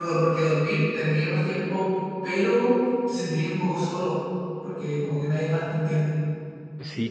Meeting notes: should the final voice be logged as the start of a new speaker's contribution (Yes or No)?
Yes